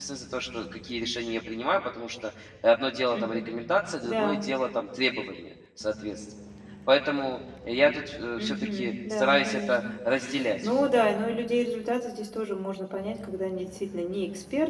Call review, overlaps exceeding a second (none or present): present